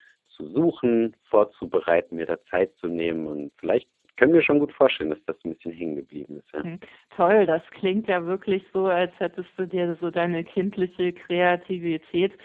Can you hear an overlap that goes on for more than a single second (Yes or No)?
No